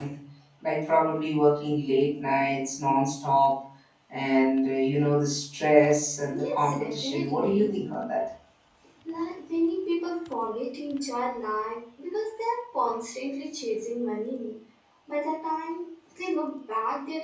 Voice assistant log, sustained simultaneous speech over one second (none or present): present